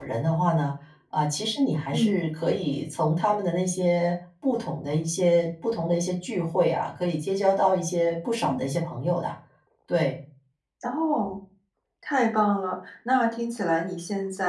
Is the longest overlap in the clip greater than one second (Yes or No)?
No